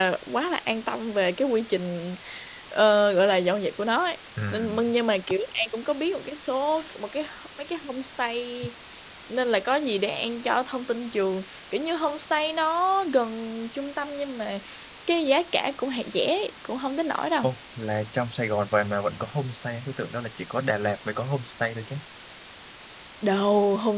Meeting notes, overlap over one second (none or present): none